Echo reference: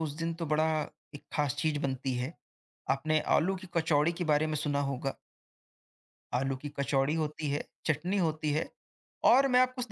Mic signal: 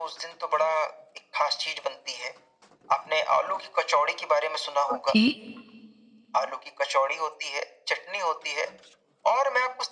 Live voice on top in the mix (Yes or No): Yes